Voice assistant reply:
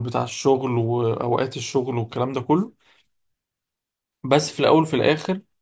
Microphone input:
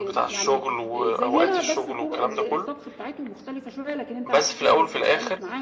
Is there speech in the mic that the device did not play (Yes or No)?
Yes